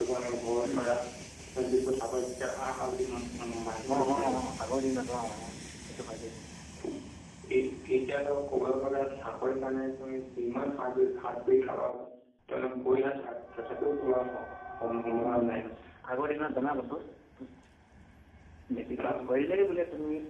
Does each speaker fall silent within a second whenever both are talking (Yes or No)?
Yes